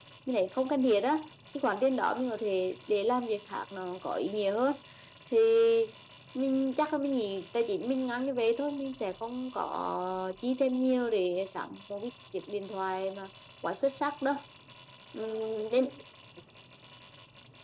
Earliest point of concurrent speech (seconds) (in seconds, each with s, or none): none